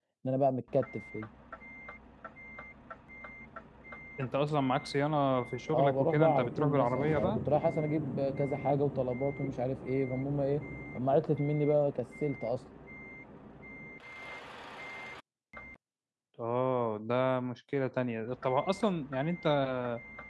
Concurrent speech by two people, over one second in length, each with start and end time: 5.7-7.4

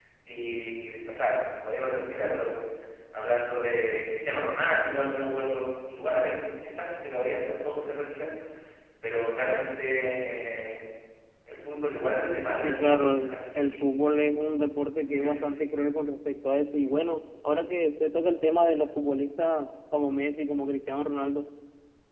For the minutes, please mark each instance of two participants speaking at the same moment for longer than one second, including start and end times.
12.6-13.9

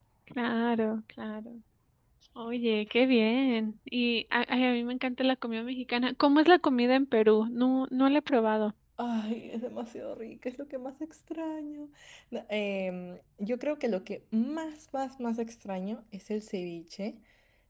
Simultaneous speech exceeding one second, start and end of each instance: none

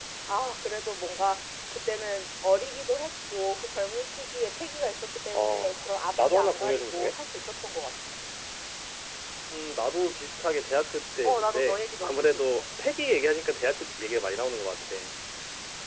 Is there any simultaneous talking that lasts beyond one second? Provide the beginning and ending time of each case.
5.3-7.1, 11.2-12.6

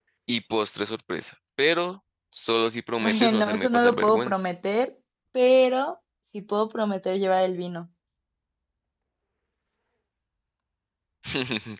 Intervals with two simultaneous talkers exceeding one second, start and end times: 3.0-4.4

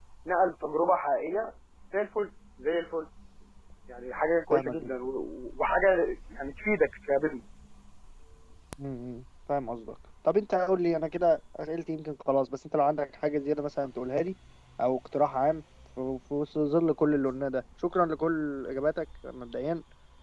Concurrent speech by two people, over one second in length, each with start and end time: none

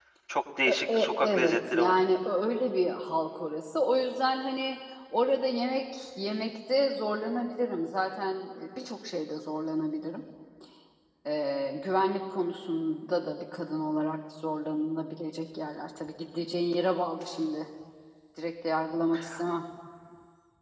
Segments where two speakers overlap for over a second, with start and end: 0.7-2.0

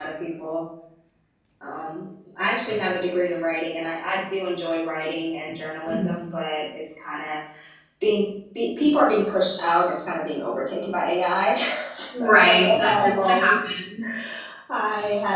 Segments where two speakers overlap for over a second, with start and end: 12.2-13.5

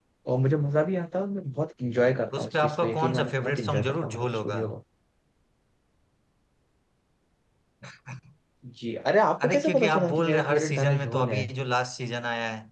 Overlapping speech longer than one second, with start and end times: 2.3-4.6, 9.4-11.4

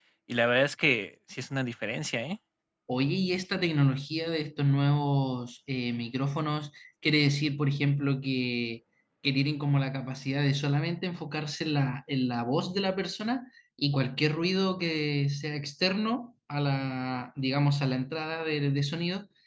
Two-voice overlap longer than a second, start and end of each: none

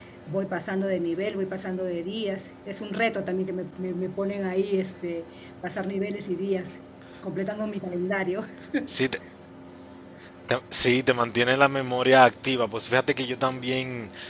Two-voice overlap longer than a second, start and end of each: none

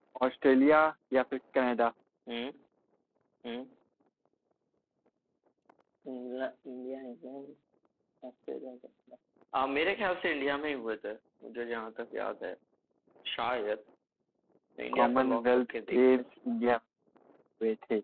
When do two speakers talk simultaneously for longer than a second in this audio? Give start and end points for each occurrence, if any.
14.9-16.3

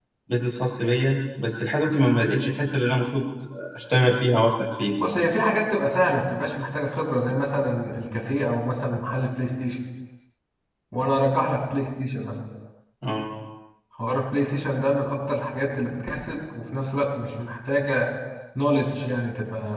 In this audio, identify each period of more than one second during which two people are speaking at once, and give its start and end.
none

